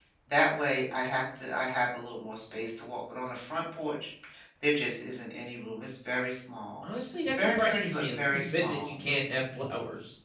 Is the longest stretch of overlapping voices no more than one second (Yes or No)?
No